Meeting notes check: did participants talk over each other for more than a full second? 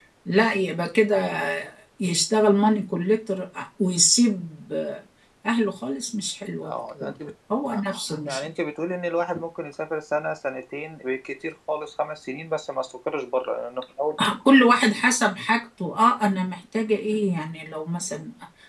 No

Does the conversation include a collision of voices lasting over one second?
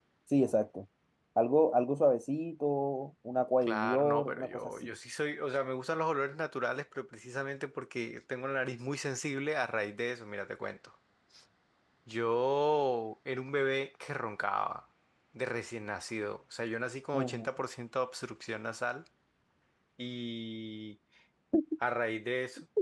Yes, from 3.6 s

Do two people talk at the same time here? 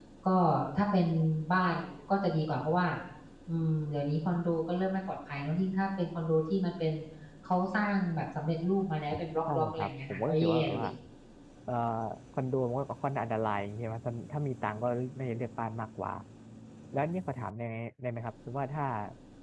Yes, from 9.5 s

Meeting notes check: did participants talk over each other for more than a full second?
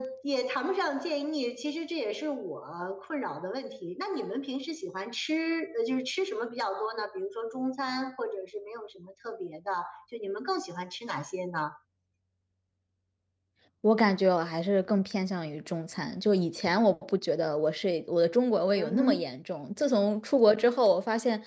No

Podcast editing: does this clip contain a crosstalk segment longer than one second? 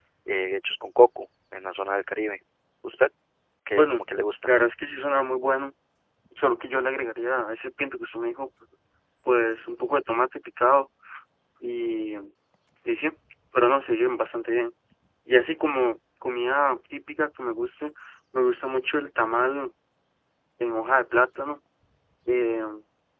No

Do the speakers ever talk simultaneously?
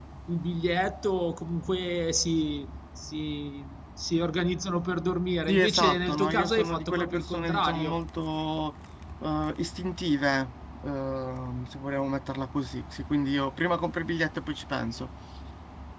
Yes, from 5.5 s

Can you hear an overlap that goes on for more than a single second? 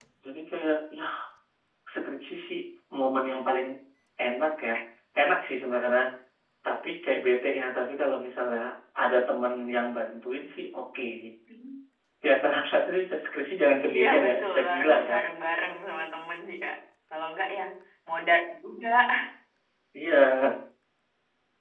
Yes, from 13.9 s

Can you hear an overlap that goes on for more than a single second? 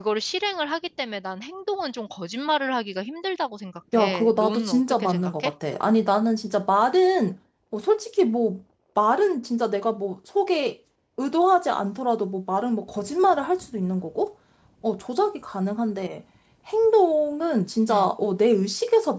Yes, from 4.0 s

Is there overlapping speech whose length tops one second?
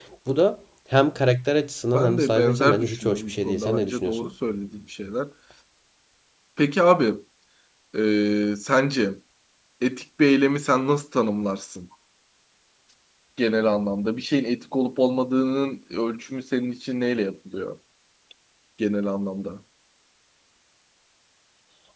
Yes, from 1.9 s

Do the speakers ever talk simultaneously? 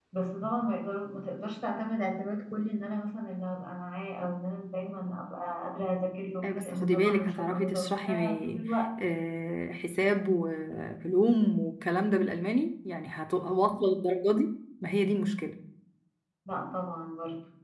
Yes, from 6.4 s

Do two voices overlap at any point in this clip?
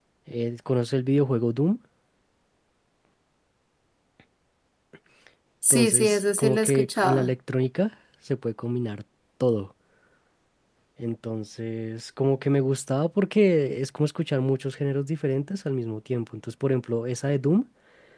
Yes, from 5.7 s

